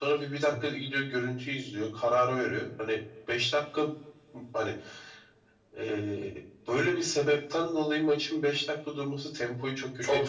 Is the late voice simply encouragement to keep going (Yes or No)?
No